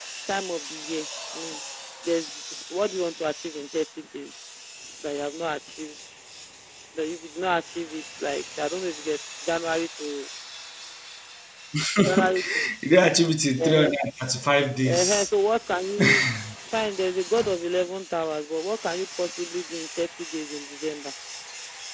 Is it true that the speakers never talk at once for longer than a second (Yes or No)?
Yes